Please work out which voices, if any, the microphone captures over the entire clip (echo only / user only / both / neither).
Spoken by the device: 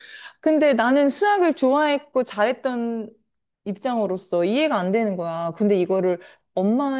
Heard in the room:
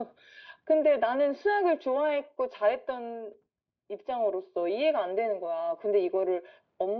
echo only